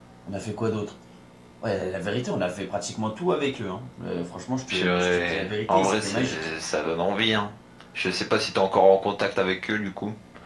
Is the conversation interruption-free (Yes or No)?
No